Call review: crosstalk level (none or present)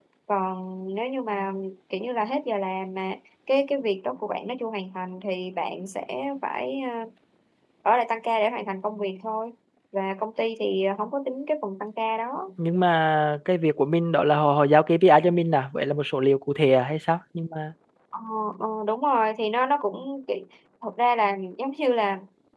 none